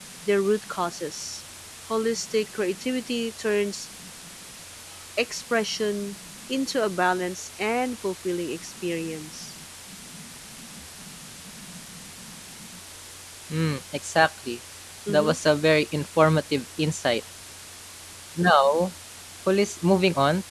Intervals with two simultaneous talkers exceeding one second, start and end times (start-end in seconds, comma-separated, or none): none